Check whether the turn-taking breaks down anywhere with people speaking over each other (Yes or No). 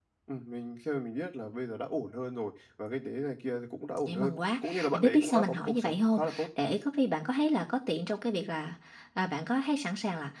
Yes